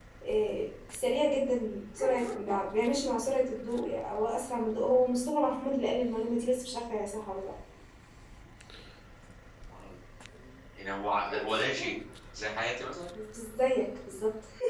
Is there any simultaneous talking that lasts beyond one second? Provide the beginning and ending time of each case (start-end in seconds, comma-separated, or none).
none